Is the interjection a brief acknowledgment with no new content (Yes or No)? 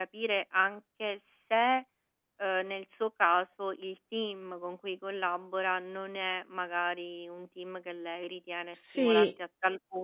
Yes